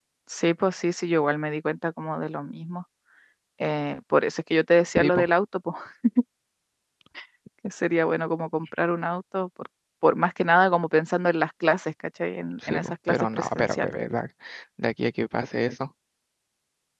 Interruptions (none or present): present